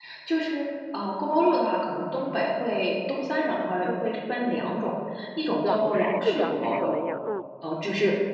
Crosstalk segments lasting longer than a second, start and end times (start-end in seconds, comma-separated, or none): 5.6-6.9